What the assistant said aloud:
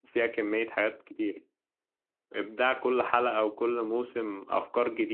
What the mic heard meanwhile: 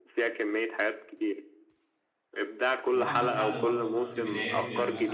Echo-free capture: No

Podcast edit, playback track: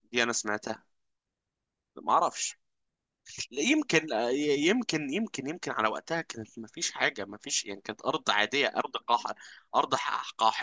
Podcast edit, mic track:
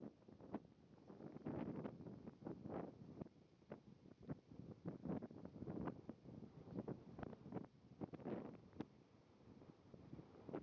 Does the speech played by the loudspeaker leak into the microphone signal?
No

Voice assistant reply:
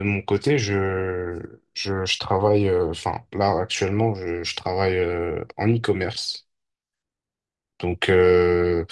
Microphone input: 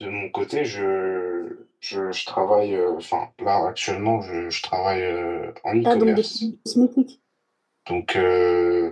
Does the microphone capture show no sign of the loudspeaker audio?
No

